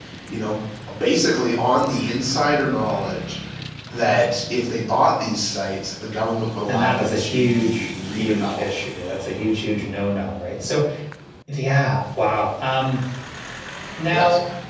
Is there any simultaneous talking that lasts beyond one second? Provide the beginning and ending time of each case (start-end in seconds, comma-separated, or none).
6.7-8.8